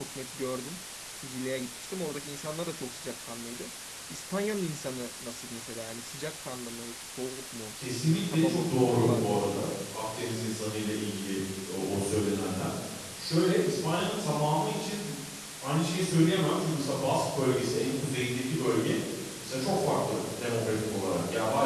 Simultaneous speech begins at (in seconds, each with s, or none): 8.3 s